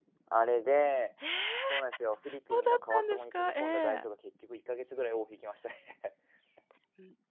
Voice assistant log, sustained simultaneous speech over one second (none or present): present